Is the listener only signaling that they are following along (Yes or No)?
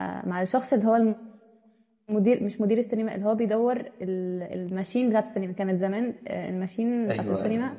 Yes